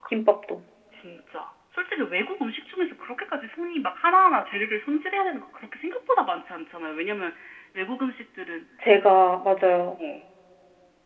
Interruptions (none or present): none